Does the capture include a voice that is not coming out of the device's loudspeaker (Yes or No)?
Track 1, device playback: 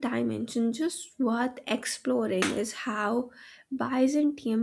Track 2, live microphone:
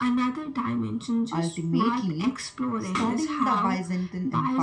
Yes